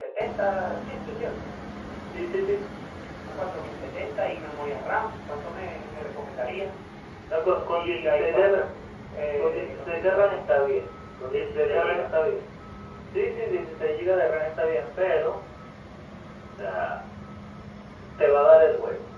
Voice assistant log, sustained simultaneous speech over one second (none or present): present